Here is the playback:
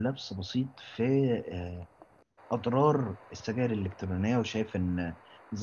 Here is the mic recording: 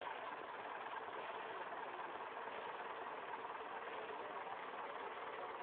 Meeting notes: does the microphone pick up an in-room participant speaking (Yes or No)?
No